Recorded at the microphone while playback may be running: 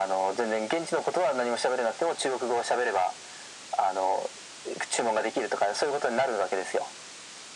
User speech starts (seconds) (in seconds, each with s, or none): none